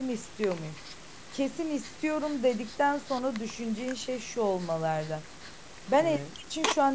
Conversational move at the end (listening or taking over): listening